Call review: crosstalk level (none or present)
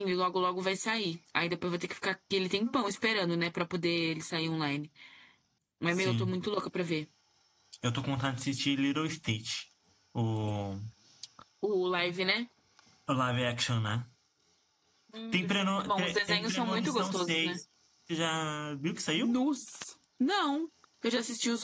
present